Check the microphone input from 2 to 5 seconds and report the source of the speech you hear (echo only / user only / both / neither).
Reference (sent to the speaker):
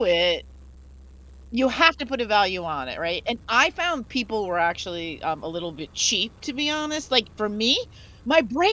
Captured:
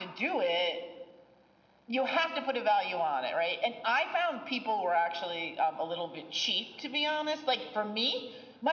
echo only